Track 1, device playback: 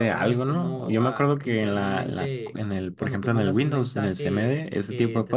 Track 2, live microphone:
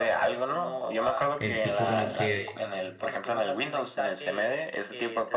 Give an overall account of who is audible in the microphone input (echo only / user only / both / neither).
both